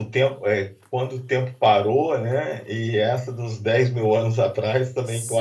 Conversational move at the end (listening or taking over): listening